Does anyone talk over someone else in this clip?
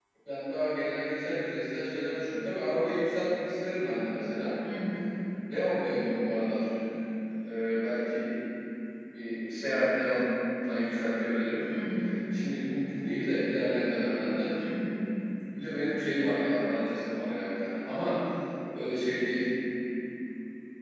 No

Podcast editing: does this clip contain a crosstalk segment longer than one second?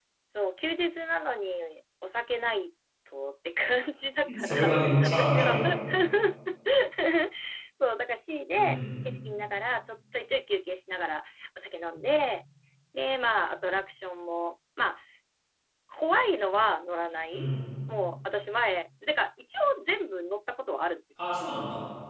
Yes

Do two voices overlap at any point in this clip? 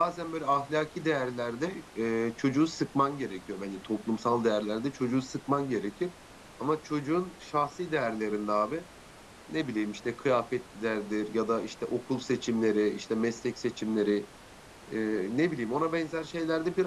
No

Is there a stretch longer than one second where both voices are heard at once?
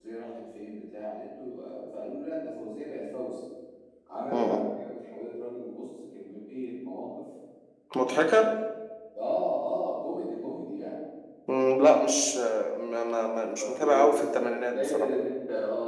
Yes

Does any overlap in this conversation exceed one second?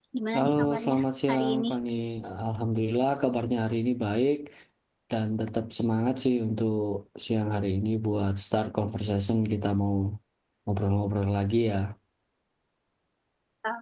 Yes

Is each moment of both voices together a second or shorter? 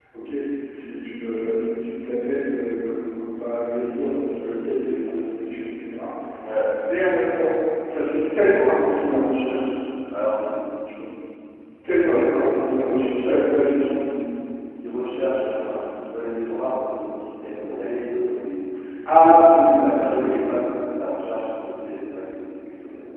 No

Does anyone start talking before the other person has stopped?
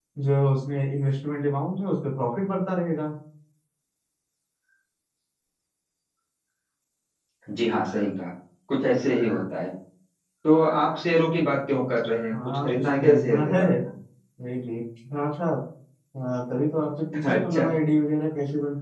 Yes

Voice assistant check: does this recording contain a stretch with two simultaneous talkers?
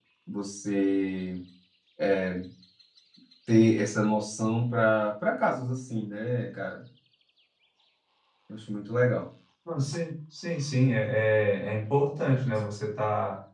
No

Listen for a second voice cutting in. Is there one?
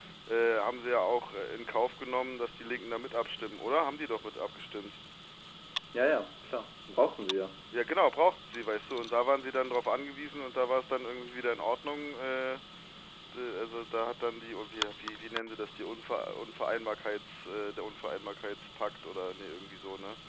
No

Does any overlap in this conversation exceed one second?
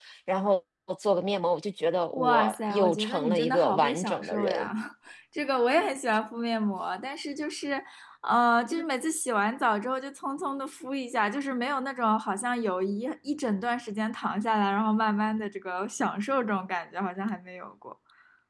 Yes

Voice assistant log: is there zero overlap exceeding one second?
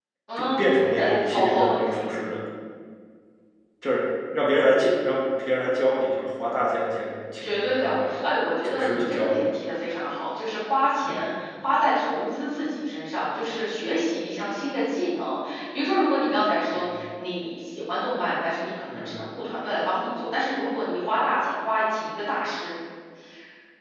No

